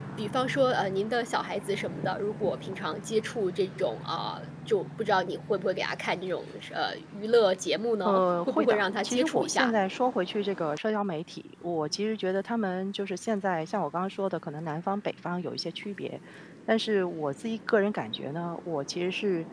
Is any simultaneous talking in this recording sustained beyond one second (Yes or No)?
Yes